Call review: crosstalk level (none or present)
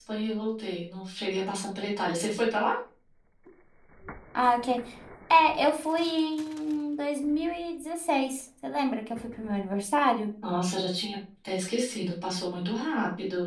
none